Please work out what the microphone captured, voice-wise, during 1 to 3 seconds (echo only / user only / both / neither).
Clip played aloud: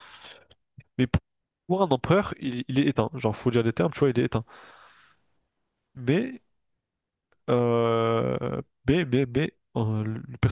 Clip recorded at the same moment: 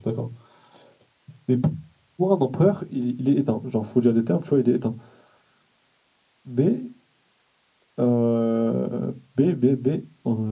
echo only